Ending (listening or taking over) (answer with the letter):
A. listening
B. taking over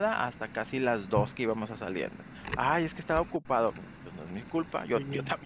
A